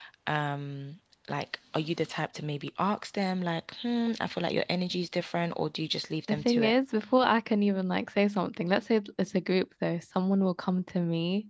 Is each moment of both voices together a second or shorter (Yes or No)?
Yes